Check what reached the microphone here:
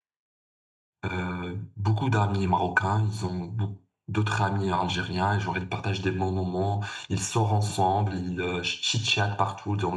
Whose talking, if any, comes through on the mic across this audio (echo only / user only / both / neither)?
user only